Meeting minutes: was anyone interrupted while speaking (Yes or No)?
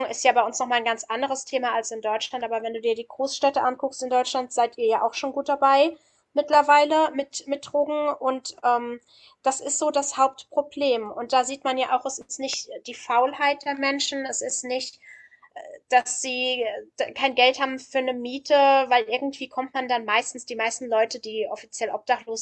No